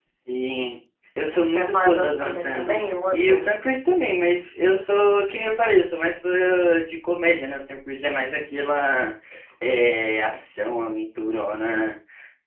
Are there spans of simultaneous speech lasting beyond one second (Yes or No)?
Yes